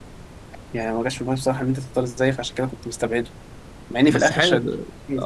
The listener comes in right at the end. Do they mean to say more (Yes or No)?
Yes